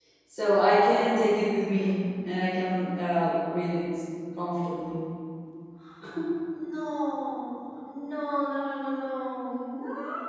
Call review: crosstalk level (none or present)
none